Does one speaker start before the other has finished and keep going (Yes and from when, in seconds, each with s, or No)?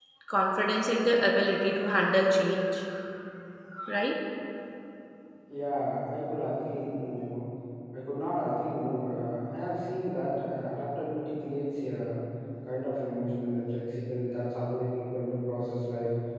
No